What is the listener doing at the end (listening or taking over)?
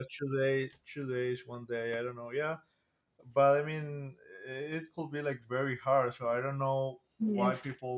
listening